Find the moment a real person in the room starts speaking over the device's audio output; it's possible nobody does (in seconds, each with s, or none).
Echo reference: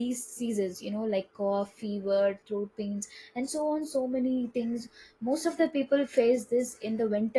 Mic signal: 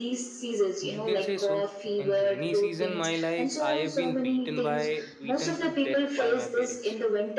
0.8 s